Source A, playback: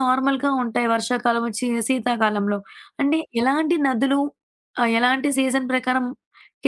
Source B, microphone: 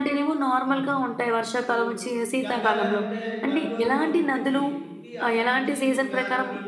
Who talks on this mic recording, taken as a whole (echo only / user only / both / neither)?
both